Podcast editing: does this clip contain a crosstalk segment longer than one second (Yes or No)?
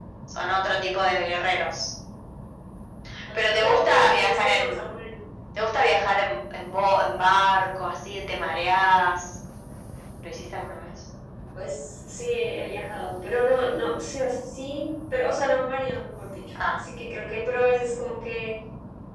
Yes